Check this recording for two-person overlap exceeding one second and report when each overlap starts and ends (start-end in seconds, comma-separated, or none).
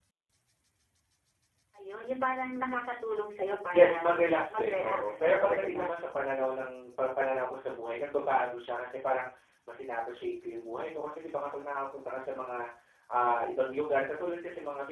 4.5-5.9